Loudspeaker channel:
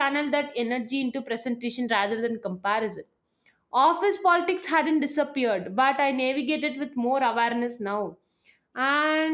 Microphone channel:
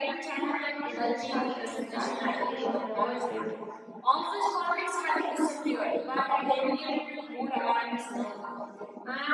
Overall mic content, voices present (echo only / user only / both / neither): both